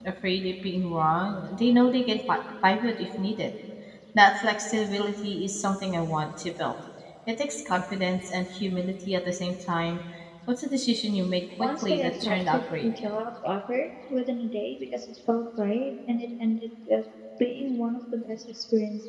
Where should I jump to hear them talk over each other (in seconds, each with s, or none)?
11.6 s